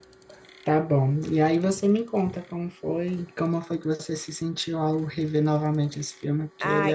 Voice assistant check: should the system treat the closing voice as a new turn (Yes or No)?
Yes